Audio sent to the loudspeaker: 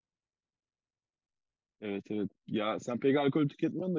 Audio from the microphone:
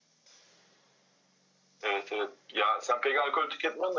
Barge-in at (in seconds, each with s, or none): none